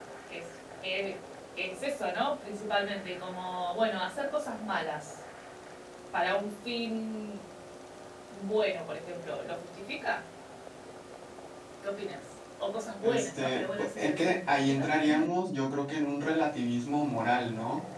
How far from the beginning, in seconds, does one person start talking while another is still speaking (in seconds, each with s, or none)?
13.0 s